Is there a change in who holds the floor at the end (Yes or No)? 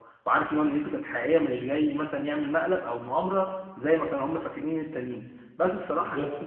No